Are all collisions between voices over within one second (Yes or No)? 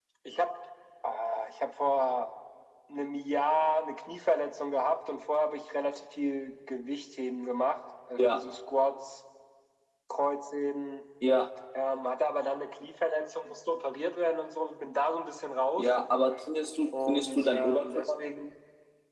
No